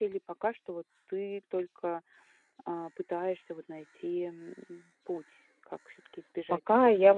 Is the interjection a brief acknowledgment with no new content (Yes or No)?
No